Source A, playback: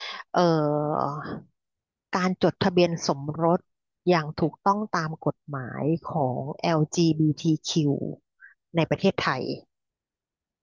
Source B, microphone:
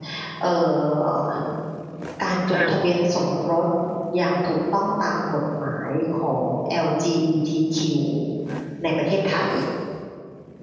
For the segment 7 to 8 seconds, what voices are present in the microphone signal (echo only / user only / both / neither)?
echo only